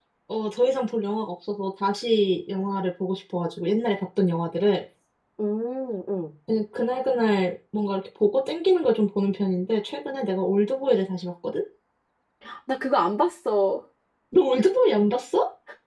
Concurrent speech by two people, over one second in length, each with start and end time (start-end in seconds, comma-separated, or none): none